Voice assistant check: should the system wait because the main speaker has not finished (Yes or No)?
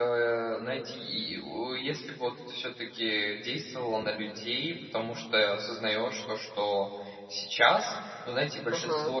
Yes